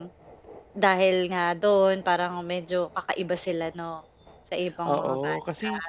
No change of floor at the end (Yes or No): No